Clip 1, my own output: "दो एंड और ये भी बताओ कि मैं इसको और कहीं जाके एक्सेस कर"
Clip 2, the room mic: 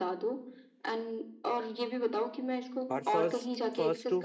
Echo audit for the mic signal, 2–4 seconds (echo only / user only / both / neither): both